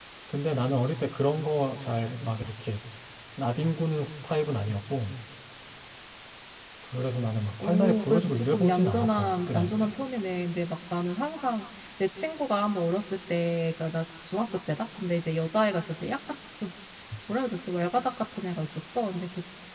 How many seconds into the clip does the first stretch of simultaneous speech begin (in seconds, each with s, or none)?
7.6 s